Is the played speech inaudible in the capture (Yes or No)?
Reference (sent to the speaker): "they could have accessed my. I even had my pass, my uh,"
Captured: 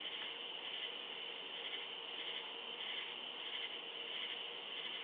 Yes